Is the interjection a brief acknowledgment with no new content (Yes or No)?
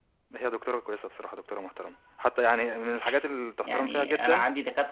No